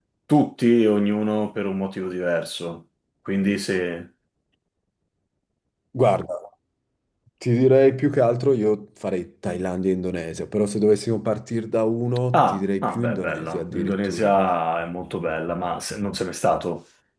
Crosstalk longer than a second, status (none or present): present